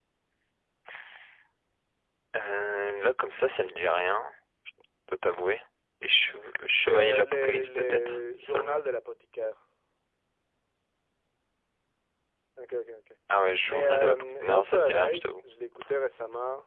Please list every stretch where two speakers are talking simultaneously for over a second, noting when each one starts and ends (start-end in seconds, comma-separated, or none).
6.8-8.9, 13.7-15.4